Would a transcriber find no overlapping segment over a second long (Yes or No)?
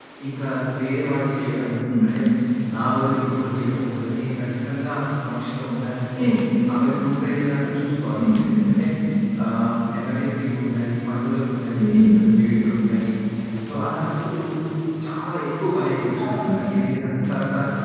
Yes